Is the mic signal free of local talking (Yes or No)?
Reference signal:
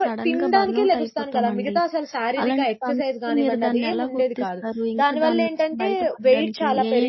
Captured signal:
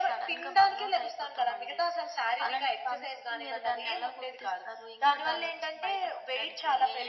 Yes